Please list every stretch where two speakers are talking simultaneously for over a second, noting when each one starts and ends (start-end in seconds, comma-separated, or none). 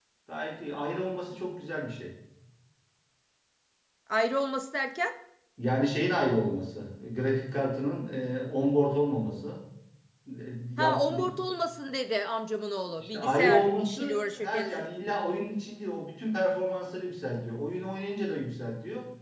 13.0-14.8